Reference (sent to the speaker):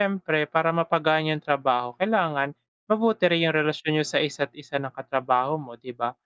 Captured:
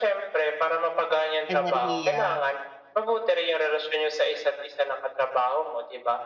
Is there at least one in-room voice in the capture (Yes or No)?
Yes